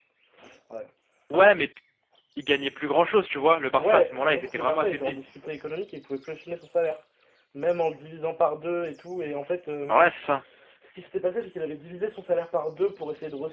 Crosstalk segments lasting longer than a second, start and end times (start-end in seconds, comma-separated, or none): 3.8-5.2